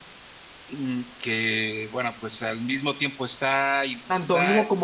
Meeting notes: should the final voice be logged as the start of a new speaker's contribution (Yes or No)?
Yes